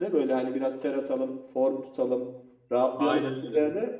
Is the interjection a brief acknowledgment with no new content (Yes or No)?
Yes